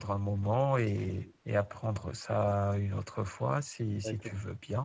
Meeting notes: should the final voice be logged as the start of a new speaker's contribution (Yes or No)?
Yes